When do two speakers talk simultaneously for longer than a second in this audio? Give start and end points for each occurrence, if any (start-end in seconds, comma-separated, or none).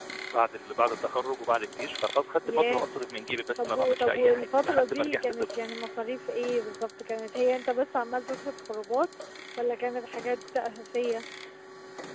3.6-5.5